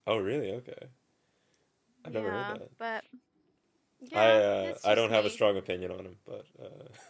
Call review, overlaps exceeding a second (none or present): present